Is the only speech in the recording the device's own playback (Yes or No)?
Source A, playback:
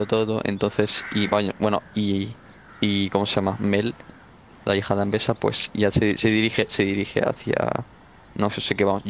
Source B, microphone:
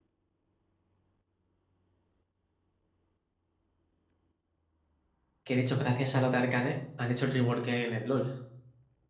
No